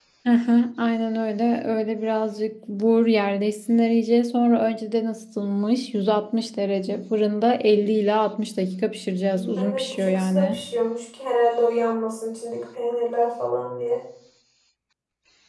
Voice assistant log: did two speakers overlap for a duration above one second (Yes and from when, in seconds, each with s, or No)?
Yes, from 9.3 s